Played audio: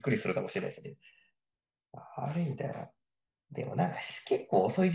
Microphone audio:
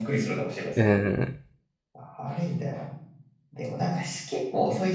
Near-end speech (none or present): present